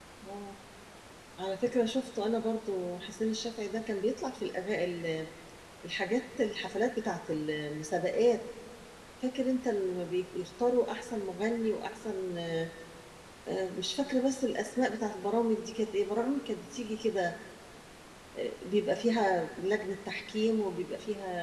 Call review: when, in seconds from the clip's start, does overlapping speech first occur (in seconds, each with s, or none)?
none